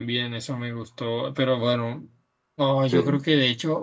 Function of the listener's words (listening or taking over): listening